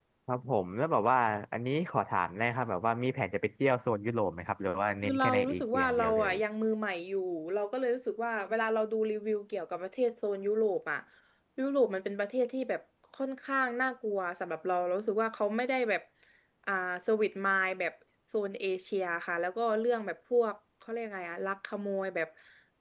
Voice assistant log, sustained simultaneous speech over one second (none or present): present